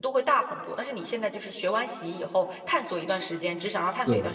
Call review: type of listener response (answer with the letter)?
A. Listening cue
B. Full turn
A